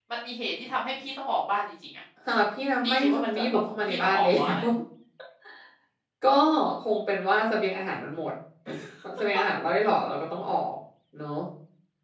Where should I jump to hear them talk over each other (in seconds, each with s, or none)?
2.8 s